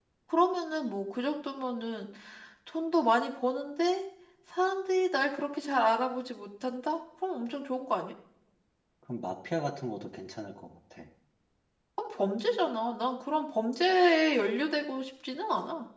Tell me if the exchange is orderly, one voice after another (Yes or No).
Yes